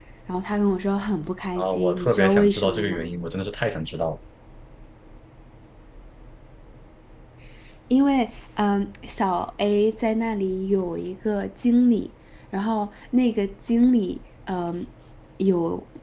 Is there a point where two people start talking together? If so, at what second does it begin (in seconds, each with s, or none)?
1.6 s